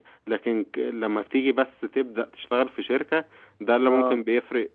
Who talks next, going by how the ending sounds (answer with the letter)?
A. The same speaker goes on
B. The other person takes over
A